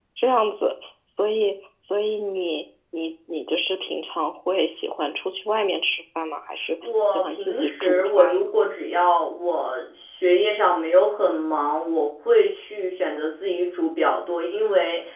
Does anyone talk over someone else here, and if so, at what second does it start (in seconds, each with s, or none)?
7.1 s